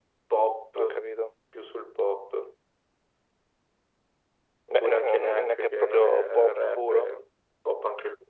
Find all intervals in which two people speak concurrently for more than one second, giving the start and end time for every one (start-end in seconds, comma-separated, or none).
4.7-7.1